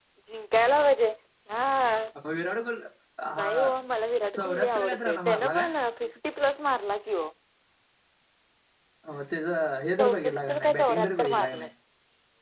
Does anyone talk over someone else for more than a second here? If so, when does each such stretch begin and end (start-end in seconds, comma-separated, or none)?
4.3-5.6, 10.0-11.7